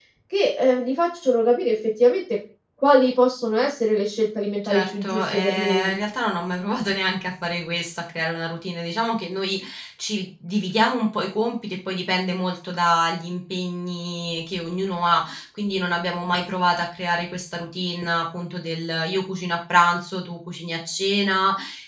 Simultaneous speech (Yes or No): Yes